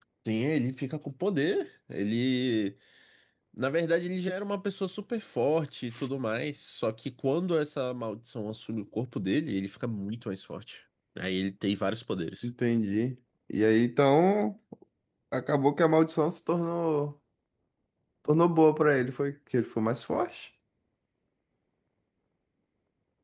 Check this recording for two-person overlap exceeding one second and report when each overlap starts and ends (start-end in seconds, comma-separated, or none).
none